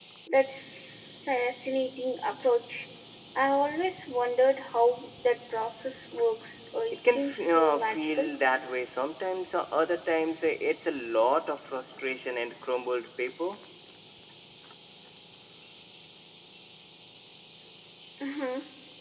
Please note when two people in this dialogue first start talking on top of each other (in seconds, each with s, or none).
7.0 s